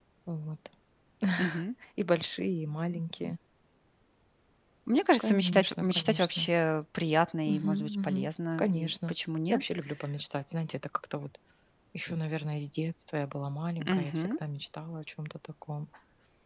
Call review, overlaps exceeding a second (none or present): present